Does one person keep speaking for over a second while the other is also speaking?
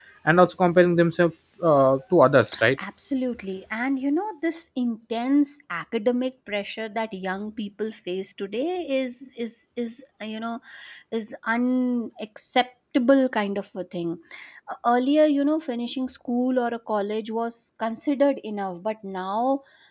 No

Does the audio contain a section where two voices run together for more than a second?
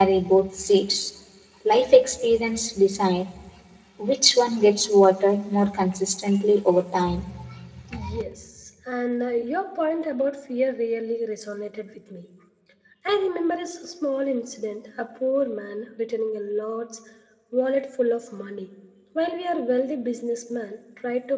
No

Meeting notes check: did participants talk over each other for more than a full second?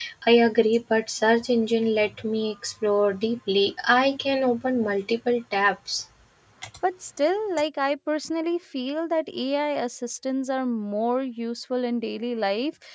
No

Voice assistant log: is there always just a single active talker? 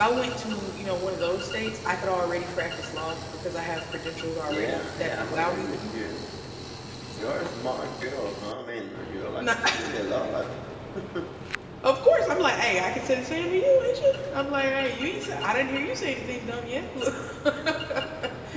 No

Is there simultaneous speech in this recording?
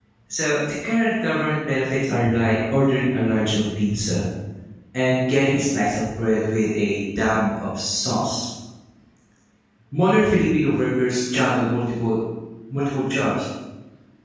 No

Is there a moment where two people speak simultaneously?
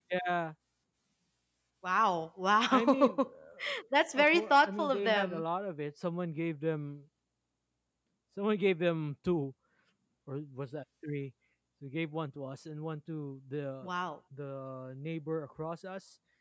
Yes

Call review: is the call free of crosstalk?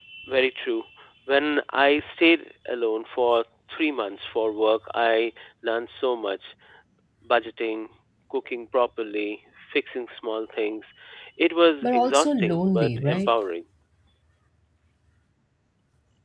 No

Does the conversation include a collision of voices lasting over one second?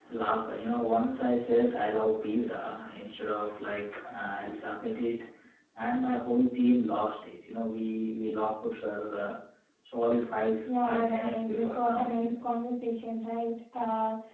Yes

